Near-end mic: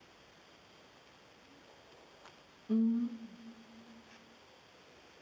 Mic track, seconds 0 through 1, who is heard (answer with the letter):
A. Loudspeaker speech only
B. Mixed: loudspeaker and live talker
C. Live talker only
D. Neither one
D